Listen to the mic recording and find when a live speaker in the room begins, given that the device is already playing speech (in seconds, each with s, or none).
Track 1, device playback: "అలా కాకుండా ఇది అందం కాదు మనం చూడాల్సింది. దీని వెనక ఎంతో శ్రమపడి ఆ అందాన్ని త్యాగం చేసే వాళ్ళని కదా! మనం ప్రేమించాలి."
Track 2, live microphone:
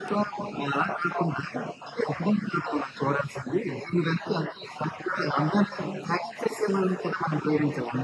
none